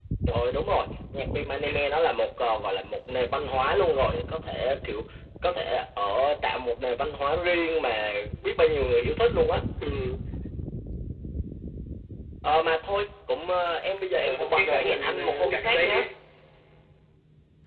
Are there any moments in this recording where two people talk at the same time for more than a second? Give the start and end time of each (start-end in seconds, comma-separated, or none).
14.2-16.0